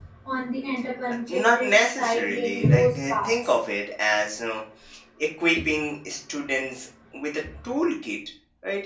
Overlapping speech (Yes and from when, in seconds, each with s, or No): Yes, from 1.3 s